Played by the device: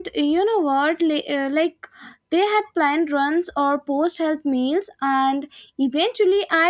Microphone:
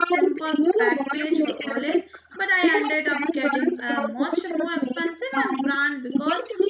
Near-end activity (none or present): present